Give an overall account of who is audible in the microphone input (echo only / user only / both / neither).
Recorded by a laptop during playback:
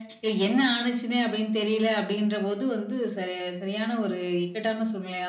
echo only